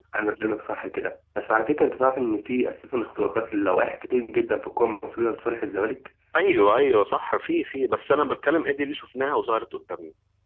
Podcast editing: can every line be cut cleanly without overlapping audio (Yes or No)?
Yes